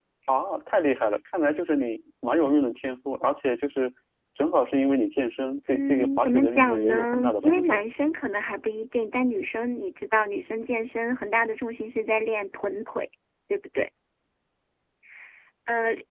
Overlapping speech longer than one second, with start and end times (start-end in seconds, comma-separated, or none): 5.7-7.8